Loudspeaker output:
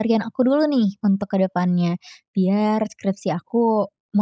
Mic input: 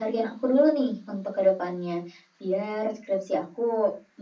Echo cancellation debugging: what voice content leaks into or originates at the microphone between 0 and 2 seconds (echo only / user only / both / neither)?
echo only